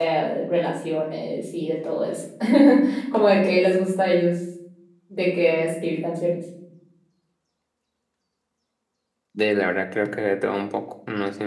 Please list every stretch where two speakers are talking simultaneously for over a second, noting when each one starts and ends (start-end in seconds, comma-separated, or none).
none